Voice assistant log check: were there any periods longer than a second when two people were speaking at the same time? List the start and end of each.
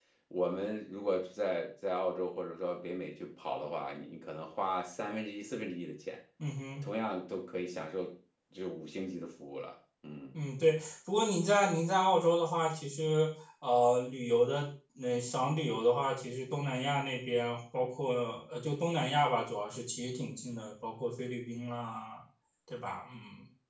none

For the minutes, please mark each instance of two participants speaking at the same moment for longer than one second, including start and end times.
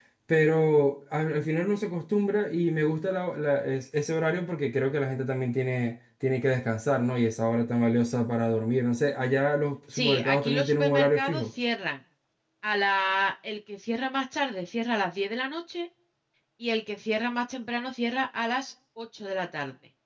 9.9-11.5

